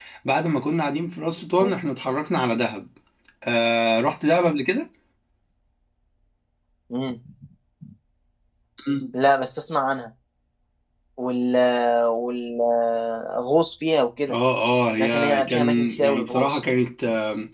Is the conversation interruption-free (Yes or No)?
No